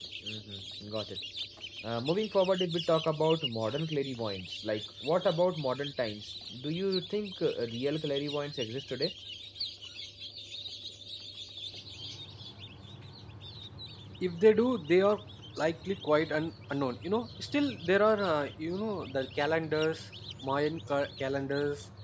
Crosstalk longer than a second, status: none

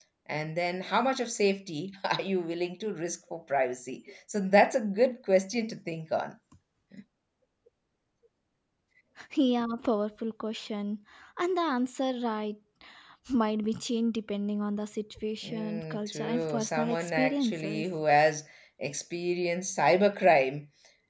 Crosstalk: present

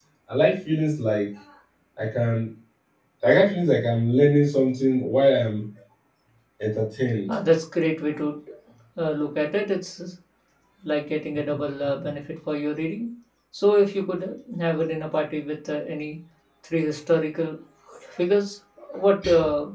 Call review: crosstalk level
none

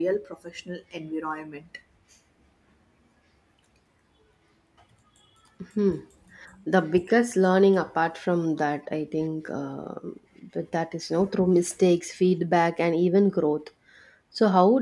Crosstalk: none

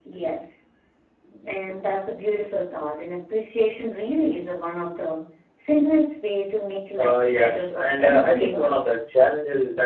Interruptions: present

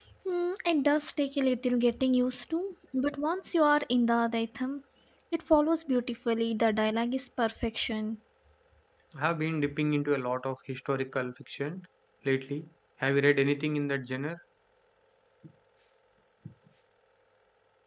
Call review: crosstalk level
none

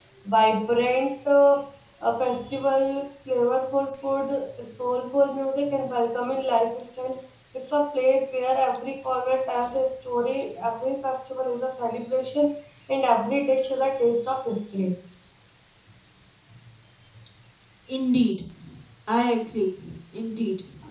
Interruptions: none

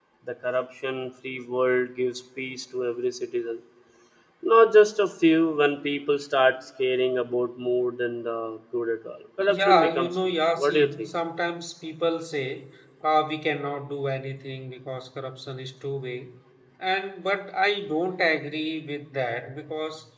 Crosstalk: present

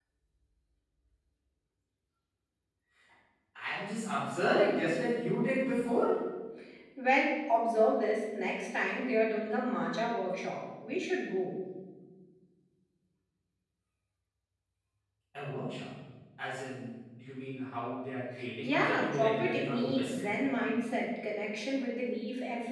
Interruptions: present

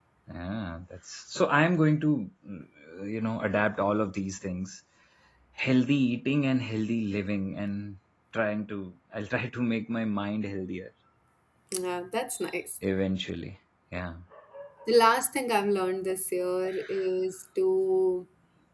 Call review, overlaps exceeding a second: none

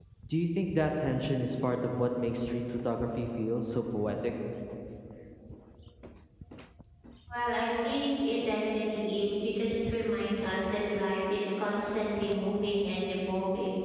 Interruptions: none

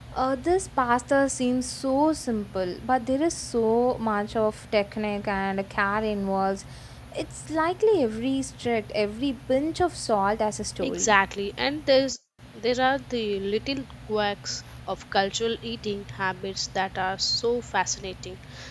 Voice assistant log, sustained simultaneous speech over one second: none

